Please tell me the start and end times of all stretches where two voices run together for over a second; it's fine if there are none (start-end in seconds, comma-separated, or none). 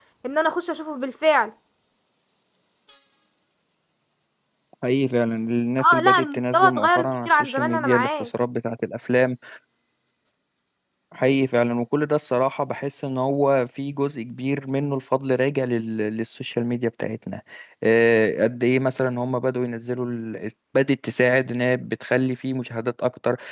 5.8-8.3